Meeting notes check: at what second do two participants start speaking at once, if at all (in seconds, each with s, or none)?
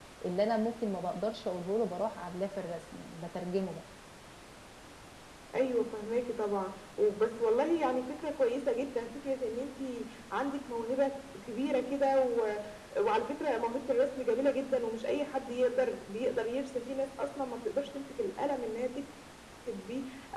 none